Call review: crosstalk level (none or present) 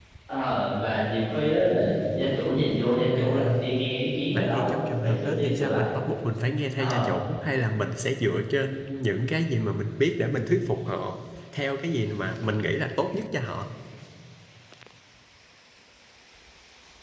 present